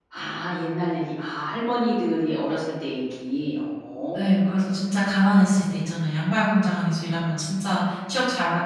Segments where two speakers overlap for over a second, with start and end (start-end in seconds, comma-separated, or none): none